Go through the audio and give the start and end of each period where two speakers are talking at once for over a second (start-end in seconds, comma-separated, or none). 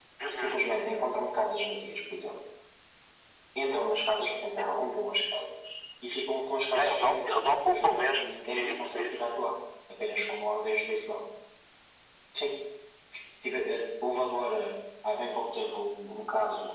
6.7-9.2